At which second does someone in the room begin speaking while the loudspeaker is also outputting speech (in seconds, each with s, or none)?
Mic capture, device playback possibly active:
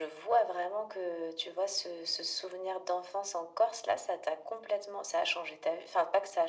none